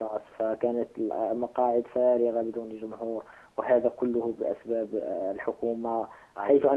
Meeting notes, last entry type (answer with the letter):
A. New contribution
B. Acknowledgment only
B